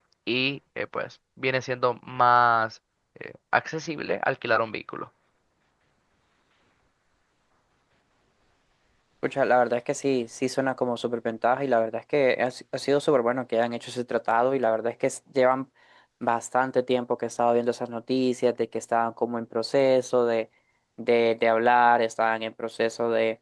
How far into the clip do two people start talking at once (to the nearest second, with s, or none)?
none